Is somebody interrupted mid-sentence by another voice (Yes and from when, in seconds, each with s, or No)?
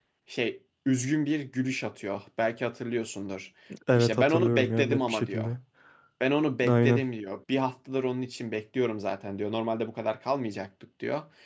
Yes, from 4.0 s